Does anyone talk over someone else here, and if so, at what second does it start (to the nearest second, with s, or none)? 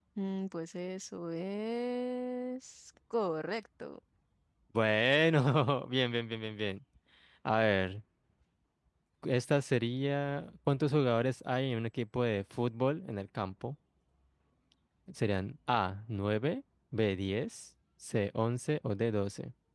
none